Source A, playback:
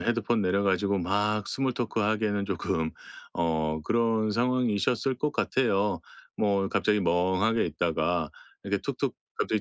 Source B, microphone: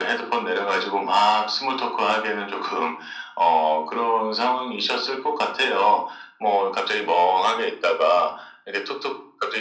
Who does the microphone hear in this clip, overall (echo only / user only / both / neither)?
echo only